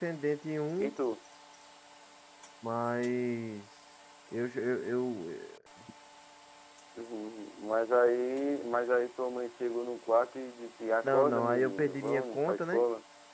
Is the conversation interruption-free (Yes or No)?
No